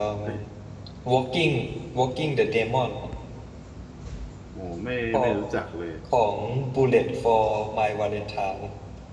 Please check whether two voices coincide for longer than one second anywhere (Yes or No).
No